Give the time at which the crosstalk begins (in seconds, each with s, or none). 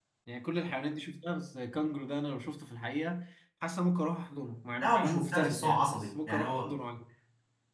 4.8 s